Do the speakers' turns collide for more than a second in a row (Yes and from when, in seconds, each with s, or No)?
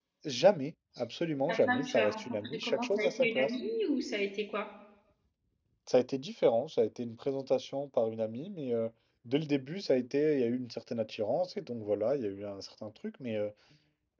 Yes, from 1.5 s